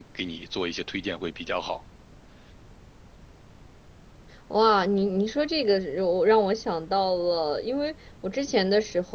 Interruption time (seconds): none

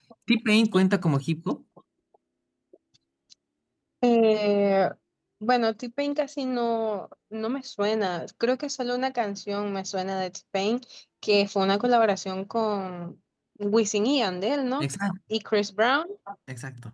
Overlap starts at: none

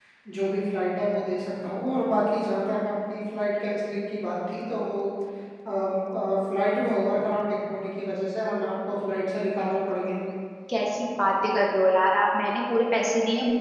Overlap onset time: none

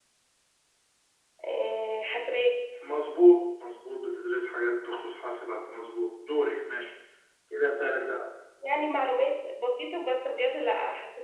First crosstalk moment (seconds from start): none

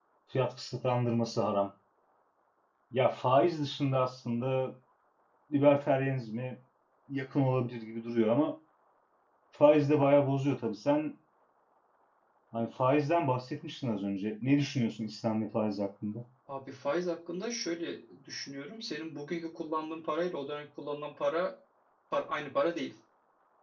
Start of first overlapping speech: none

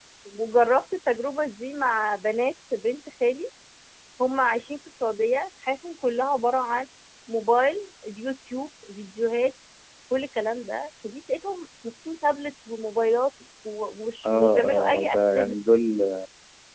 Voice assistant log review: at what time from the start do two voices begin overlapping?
14.2 s

